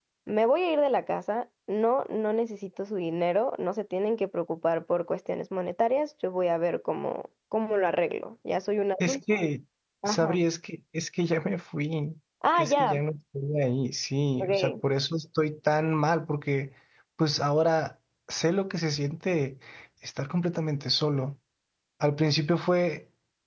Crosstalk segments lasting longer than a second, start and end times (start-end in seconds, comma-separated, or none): none